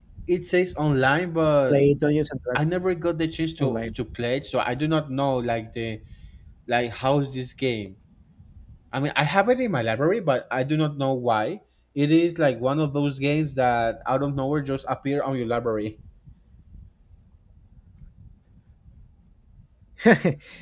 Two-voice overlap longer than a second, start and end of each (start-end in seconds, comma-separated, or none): none